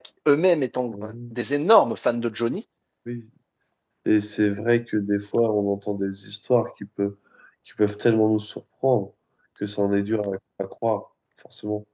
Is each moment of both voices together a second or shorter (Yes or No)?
Yes